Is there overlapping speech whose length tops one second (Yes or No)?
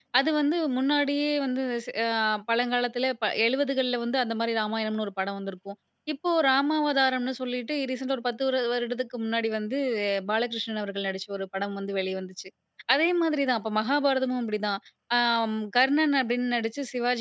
No